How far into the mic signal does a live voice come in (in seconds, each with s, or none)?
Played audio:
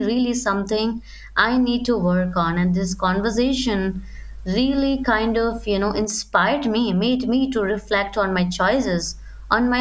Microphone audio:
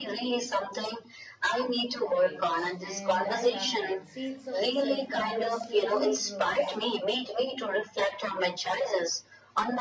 2.0 s